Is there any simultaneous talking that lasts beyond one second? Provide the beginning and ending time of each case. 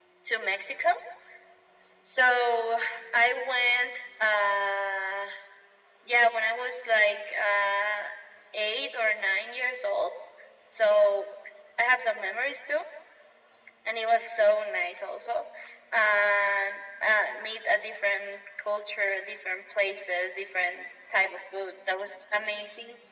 none

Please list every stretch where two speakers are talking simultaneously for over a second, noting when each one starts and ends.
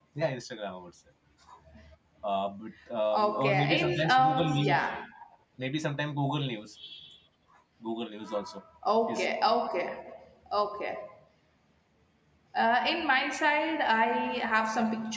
3.2-4.8

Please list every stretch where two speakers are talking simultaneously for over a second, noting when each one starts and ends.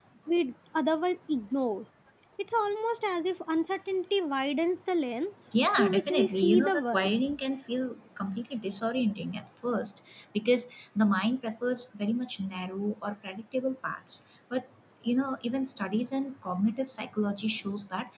5.8-7.1

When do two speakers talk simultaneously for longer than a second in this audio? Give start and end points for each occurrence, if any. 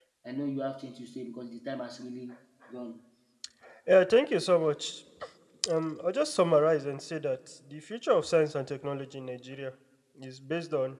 none

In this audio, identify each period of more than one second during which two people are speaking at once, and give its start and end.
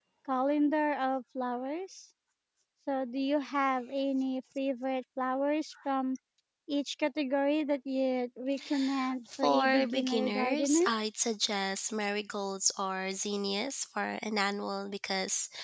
9.4-10.8

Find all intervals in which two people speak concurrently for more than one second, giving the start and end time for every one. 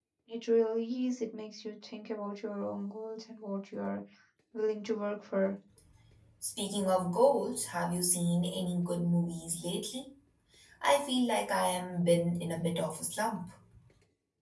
none

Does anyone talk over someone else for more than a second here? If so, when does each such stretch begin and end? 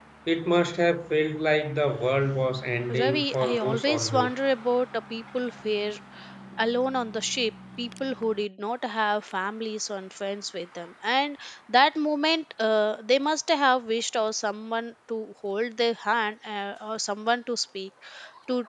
3.0-4.3

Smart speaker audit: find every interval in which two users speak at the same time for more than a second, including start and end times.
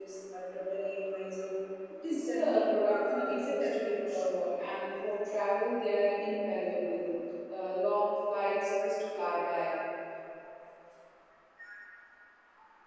2.1-4.3

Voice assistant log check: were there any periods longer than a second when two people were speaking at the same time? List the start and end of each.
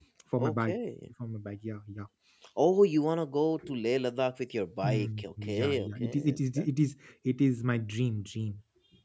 4.8-6.6

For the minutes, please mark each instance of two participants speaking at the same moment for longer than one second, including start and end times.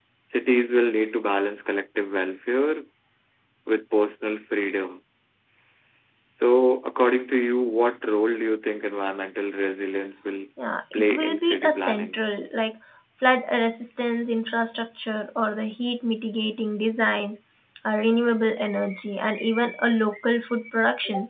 10.9-12.2

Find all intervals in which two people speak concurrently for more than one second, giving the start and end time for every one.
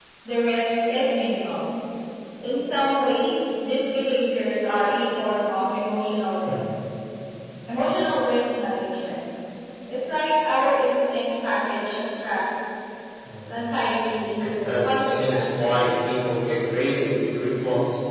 14.5-15.8

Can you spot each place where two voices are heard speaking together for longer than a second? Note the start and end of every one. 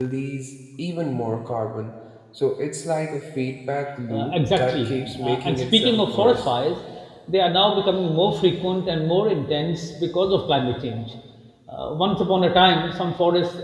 4.1-6.5

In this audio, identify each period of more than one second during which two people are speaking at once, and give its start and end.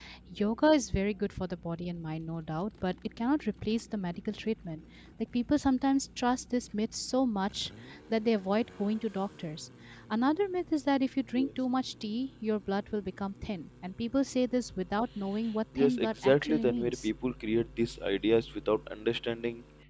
15.8-17.1

